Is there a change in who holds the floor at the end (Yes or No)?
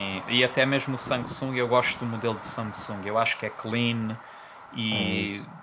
No